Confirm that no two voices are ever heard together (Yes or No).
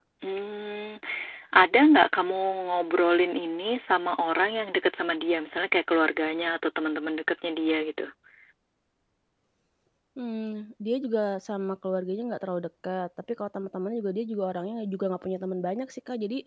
Yes